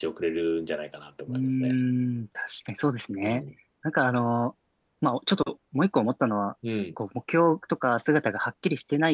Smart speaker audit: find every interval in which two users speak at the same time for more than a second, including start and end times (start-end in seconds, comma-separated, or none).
none